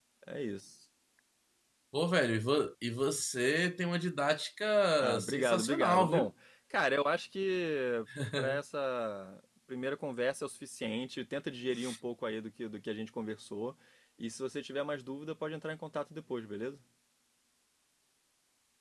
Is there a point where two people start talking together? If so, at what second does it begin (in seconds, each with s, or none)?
5.0 s